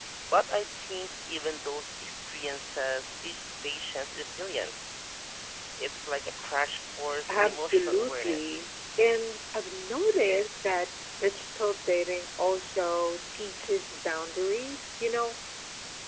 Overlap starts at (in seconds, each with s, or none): 7.3 s